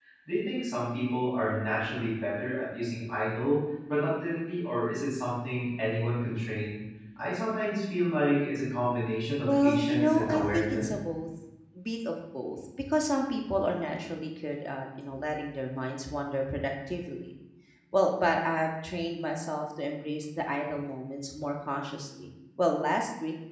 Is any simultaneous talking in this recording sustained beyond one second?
Yes, from 9.4 s

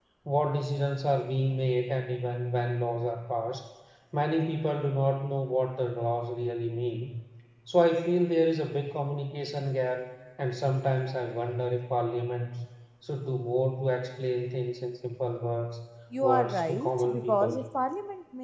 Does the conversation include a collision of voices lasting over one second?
Yes, from 16.2 s

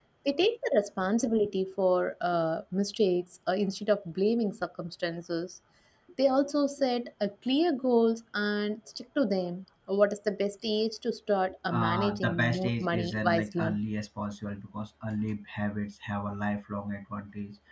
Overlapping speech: Yes, from 11.7 s

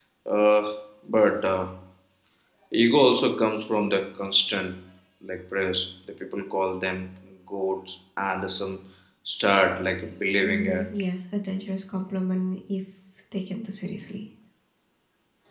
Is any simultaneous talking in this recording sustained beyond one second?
No

